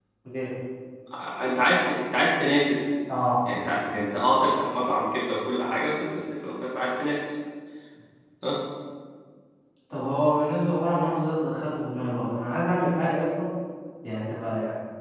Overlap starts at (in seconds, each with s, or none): none